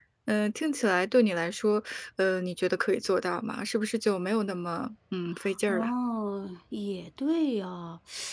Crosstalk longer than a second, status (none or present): none